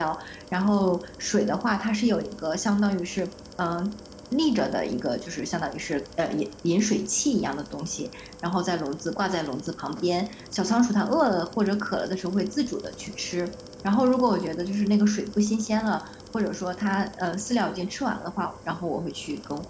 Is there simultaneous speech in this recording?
No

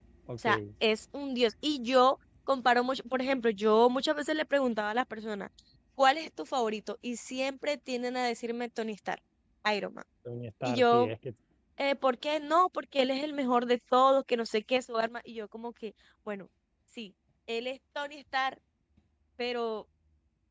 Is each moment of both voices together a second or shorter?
Yes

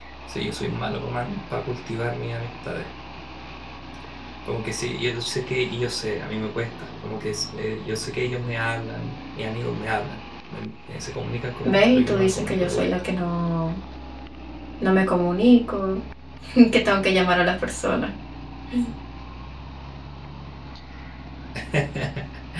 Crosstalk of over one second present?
Yes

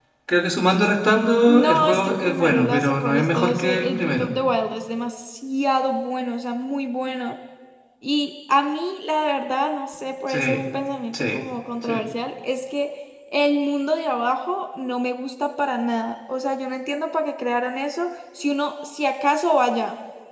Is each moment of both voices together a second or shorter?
No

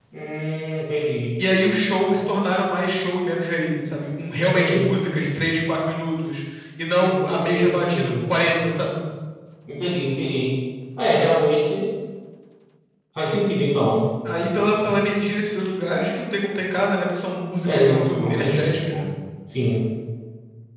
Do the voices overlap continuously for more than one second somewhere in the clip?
Yes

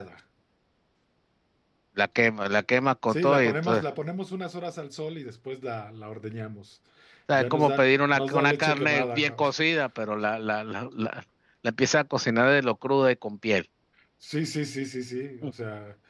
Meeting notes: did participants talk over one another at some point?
Yes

